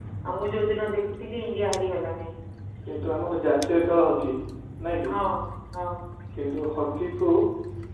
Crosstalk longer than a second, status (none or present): none